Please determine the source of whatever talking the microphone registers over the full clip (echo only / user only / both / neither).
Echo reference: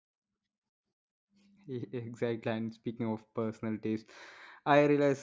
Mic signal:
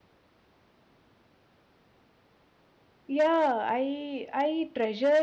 user only